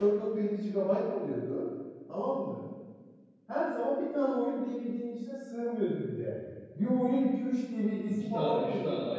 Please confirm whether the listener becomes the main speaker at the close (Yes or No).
Yes